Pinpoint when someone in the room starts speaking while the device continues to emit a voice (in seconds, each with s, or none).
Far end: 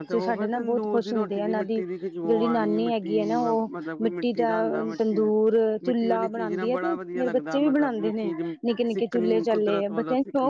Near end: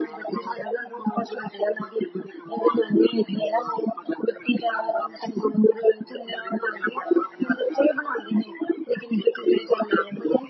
none